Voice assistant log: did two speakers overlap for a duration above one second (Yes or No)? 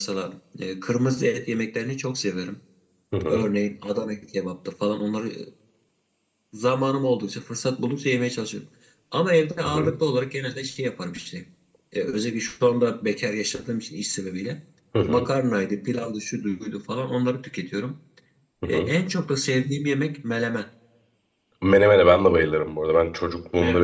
No